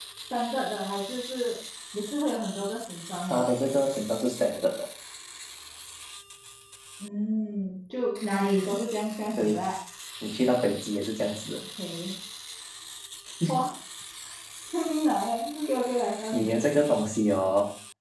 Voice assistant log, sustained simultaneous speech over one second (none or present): none